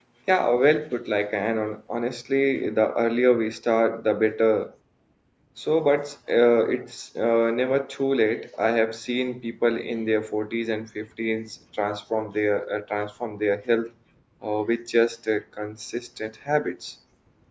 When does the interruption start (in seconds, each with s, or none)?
none